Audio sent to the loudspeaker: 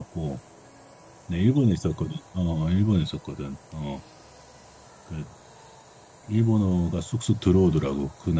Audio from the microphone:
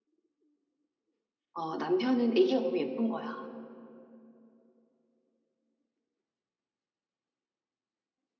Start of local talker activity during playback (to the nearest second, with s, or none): 2 s